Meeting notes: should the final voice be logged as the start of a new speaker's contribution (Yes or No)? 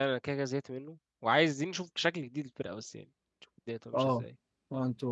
Yes